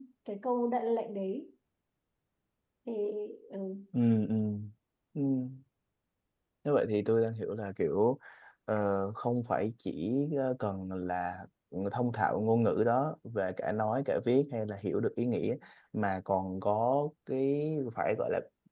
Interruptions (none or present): none